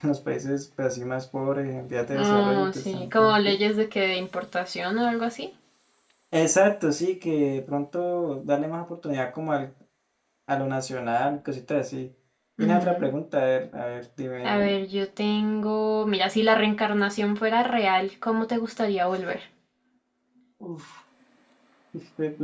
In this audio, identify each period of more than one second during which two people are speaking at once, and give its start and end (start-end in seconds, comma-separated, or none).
2.1-3.6